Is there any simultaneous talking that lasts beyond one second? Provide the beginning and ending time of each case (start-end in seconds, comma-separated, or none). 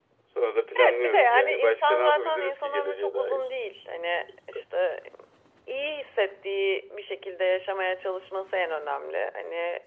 0.9-3.4